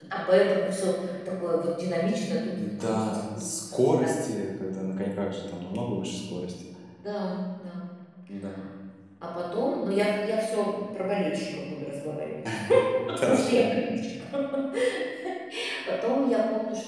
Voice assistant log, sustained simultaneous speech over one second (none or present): present